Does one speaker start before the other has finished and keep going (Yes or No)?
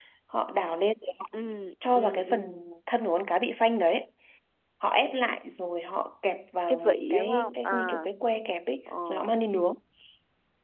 Yes